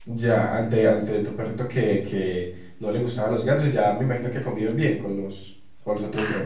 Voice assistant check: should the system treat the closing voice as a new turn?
Yes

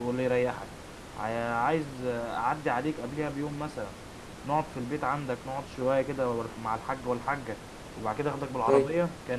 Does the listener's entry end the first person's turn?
No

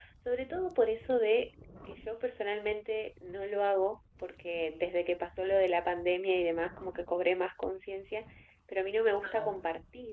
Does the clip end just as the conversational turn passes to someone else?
No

